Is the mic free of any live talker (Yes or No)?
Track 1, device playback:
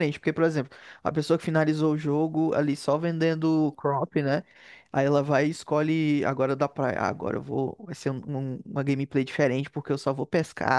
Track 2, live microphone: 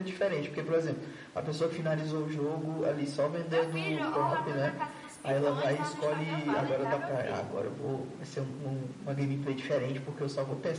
No